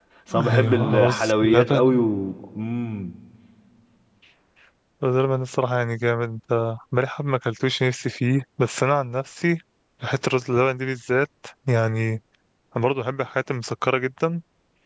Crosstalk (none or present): present